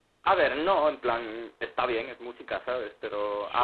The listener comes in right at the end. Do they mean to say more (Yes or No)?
No